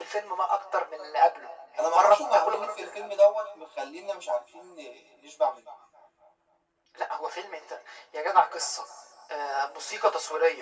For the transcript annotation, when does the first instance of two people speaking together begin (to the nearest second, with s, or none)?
2 s